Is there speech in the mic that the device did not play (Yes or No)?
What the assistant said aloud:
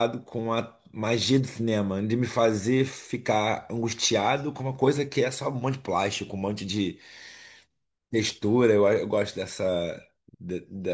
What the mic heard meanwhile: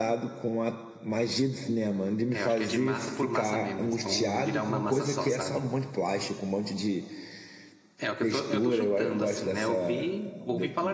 Yes